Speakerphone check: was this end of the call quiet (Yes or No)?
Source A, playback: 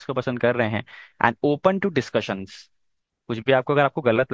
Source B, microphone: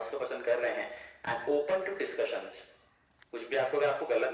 Yes